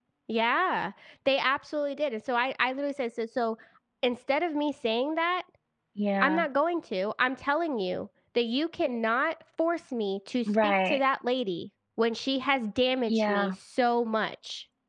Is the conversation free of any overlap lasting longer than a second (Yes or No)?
Yes